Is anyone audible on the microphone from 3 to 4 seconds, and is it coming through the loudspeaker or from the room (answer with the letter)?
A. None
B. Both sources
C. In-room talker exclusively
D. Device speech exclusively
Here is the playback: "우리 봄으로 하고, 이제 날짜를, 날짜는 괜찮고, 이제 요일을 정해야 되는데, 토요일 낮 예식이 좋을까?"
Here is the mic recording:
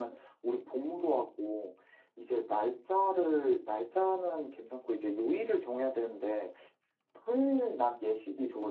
D